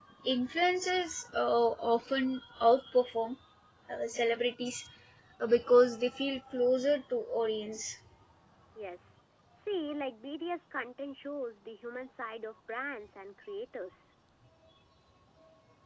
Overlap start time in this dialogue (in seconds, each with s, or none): none